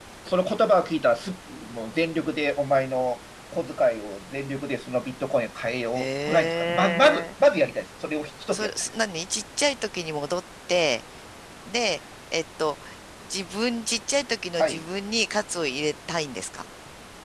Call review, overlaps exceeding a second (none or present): present